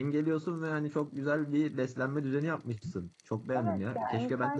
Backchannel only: No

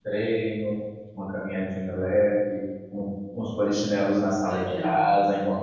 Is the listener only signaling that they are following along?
Yes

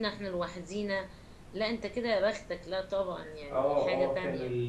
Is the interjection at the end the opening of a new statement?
Yes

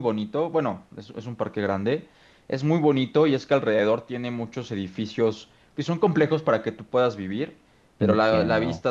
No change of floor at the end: Yes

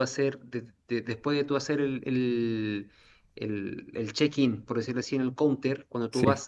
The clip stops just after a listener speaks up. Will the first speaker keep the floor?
Yes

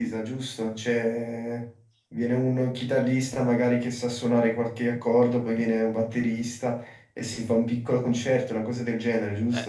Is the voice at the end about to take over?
Yes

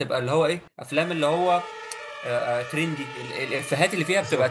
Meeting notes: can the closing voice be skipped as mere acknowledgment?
Yes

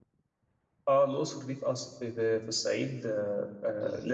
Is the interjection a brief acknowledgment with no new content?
Yes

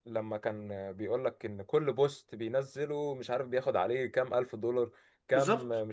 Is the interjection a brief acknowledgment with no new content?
Yes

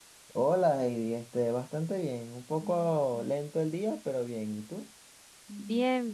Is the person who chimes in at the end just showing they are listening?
No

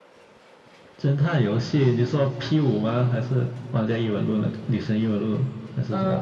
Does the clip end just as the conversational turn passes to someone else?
Yes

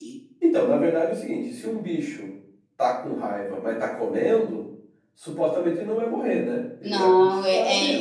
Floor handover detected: Yes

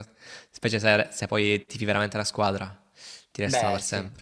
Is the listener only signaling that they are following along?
No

